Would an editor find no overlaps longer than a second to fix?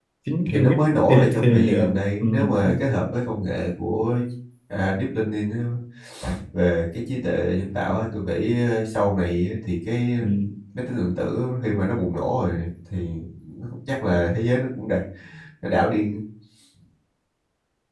No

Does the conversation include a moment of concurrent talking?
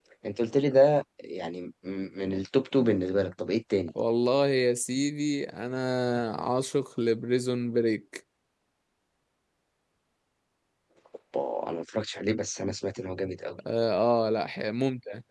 No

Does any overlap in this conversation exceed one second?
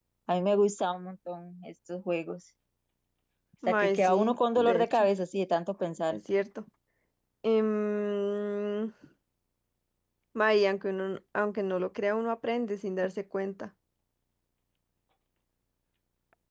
Yes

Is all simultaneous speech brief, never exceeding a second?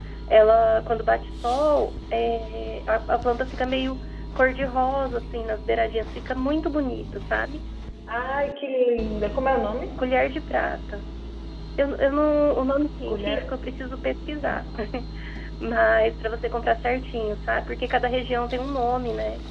Yes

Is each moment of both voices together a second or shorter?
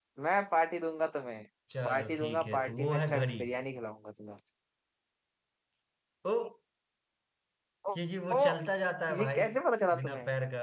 No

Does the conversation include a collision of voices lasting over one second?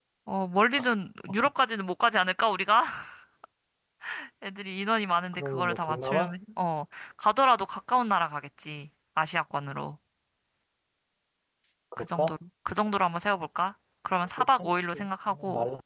Yes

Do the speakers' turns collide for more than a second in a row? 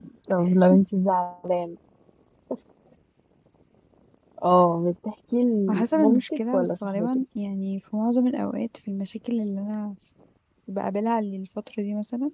Yes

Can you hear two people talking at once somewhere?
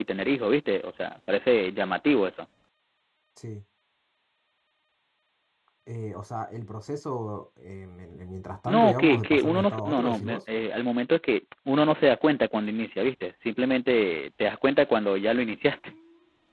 Yes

